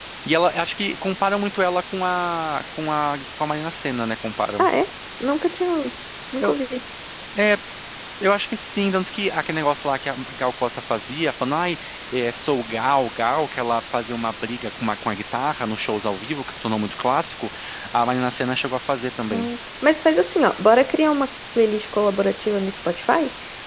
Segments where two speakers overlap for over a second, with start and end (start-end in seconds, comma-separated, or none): none